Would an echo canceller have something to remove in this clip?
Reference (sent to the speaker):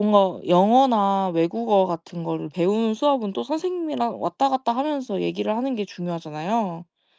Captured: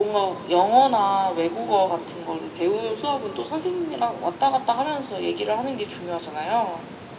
Yes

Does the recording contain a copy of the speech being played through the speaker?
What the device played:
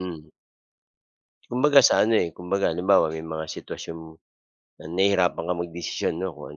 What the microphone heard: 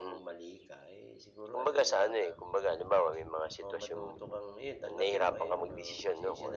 Yes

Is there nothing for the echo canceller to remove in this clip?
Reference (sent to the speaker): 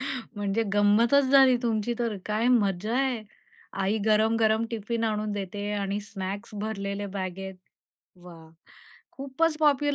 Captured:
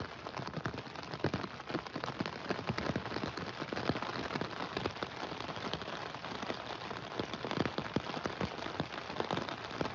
Yes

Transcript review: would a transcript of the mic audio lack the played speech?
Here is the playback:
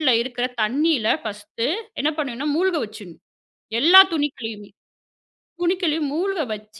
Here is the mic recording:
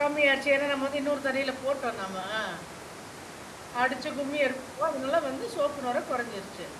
Yes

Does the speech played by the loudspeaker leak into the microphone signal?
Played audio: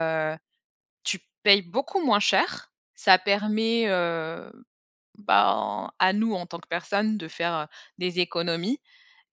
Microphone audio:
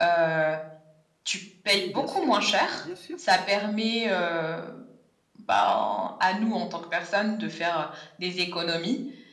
Yes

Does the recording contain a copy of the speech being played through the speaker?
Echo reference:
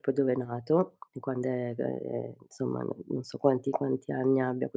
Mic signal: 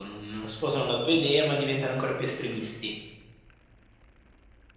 No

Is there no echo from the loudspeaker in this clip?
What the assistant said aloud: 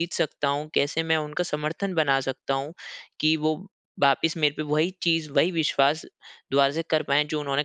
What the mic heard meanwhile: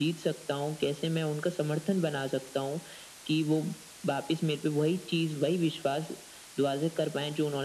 No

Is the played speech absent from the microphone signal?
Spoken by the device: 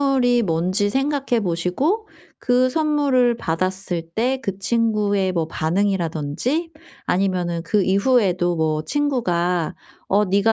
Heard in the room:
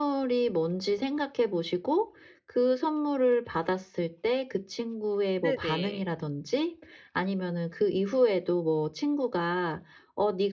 No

